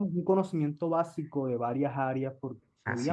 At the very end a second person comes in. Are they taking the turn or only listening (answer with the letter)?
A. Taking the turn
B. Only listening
B